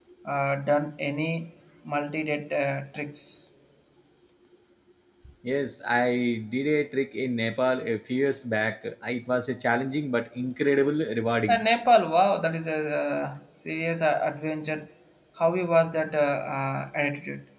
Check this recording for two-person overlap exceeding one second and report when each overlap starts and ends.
none

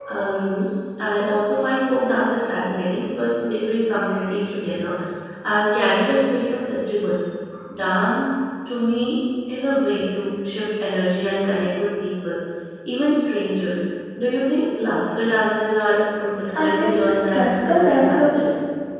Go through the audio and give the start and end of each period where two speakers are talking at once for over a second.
16.5-18.5

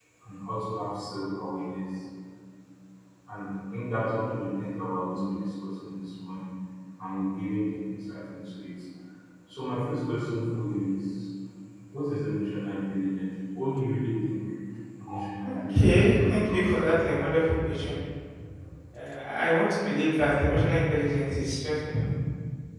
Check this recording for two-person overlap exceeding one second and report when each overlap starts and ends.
15.4-16.8

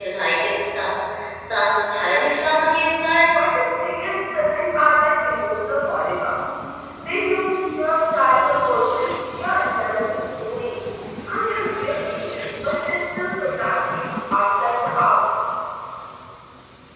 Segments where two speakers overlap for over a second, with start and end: none

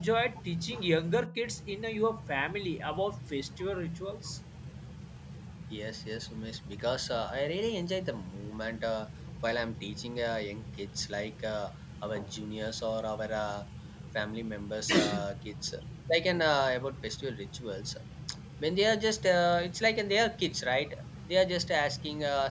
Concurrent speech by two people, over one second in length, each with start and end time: none

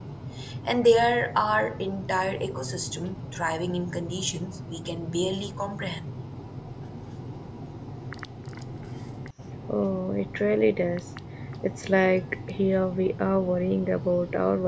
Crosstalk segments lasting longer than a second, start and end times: none

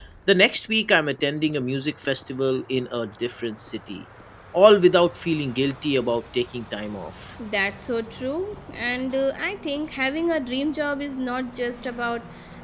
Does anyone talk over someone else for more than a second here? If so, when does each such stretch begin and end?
none

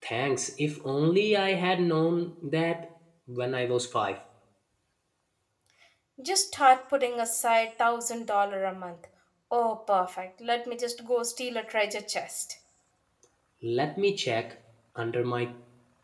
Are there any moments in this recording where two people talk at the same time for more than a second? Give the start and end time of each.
none

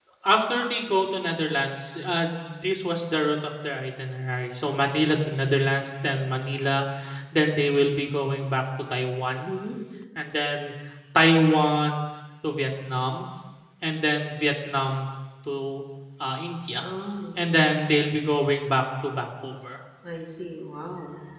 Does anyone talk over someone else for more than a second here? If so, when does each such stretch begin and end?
none

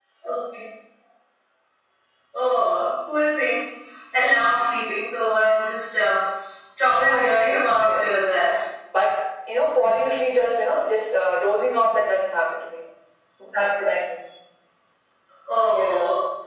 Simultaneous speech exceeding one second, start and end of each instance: 6.9-8.2

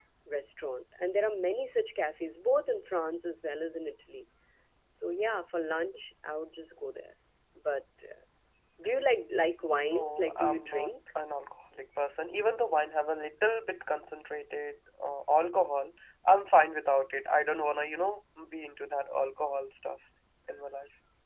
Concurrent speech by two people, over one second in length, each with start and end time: 9.6-10.9

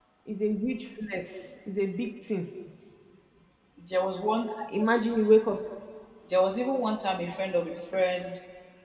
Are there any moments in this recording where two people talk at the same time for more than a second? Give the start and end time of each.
none

